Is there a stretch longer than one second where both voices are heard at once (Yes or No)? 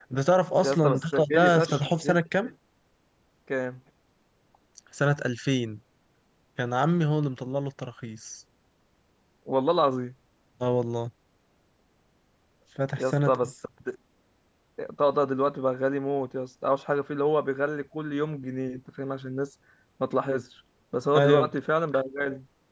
Yes